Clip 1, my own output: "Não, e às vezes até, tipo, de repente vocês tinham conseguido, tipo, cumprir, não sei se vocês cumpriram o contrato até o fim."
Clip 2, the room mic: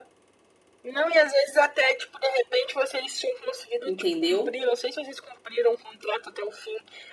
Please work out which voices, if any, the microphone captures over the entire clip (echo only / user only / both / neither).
both